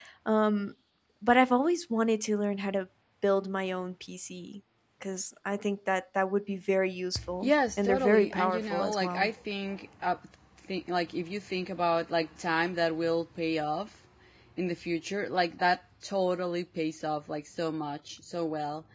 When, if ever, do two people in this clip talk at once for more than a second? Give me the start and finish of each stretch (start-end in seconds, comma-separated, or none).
7.4-9.3